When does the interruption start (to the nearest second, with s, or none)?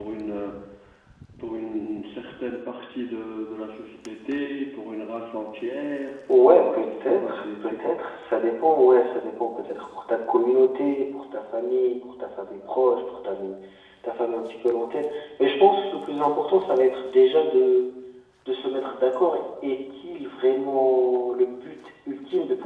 6 s